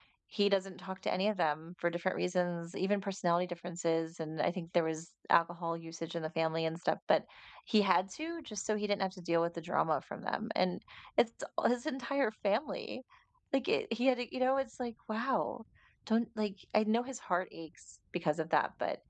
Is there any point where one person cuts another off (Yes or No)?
No